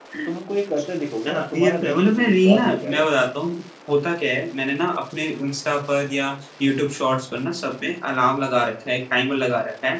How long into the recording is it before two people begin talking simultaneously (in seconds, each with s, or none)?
1.3 s